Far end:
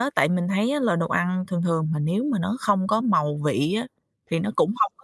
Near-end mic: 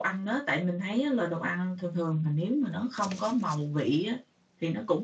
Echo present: Yes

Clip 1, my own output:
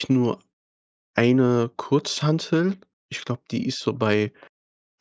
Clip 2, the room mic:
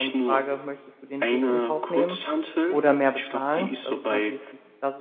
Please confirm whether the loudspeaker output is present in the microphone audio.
Yes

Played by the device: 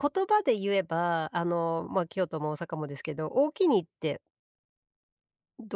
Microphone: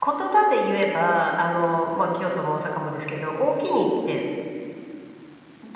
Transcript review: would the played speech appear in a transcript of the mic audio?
Yes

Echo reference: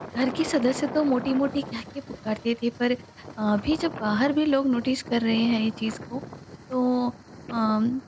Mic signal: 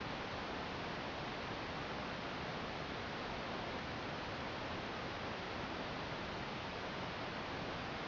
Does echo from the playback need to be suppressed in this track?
No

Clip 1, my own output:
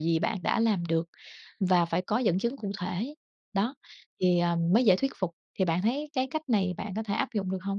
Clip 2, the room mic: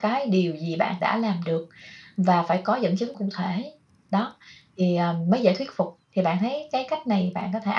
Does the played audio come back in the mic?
Yes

